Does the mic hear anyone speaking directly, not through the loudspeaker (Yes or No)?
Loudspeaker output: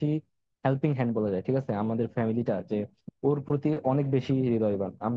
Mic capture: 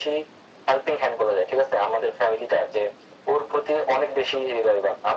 No